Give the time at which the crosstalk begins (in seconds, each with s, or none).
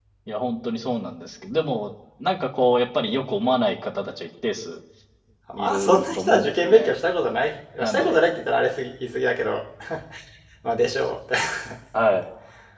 5.5 s